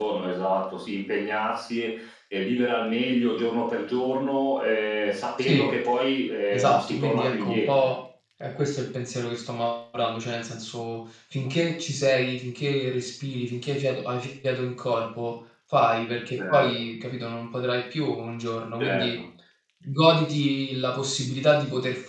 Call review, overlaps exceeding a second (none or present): present